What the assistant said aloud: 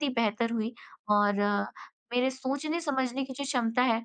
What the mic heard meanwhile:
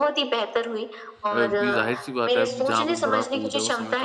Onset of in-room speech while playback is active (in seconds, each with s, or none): 1.3 s